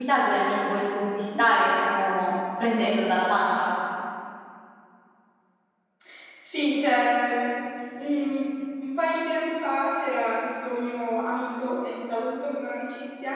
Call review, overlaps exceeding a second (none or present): none